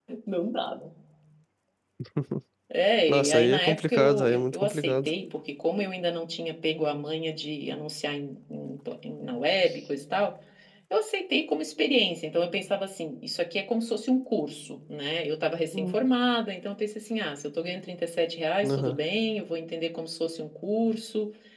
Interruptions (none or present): present